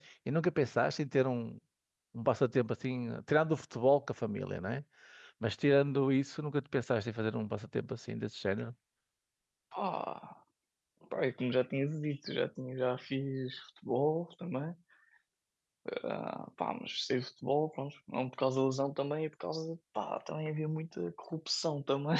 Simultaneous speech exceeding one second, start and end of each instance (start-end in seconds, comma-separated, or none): none